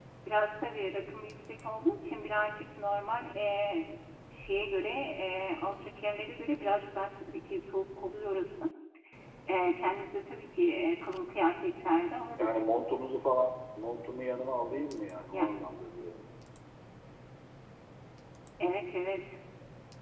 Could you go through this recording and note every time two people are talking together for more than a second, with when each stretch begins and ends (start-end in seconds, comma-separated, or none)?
none